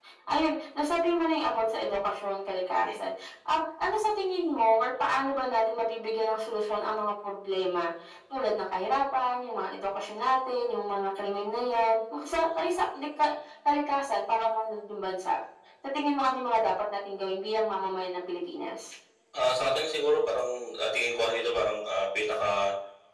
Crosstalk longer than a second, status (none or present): none